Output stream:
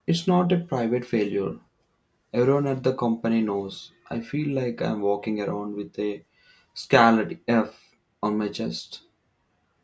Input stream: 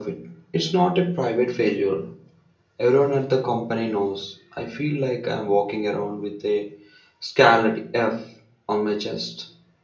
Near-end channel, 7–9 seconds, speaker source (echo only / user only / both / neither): echo only